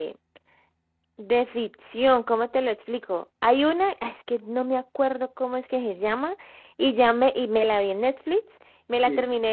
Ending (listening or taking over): listening